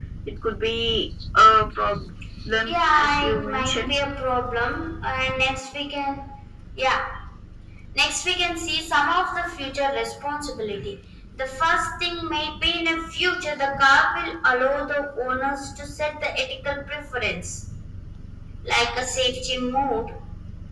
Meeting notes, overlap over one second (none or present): present